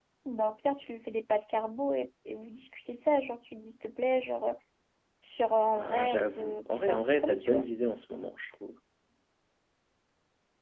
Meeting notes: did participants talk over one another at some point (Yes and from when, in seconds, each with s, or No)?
Yes, from 5.8 s